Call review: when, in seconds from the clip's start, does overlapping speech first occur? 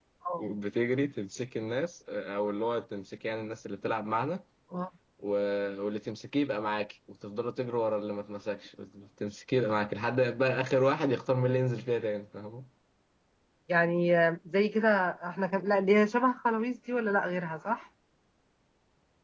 none

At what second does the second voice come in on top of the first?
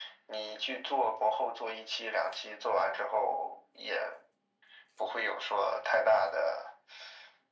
none

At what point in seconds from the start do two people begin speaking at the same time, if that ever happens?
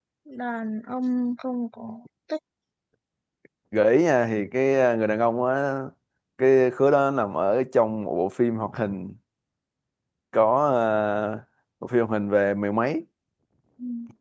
none

